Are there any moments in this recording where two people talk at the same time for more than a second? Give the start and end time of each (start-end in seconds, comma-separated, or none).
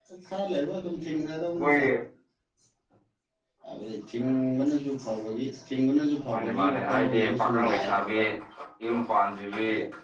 6.3-8.2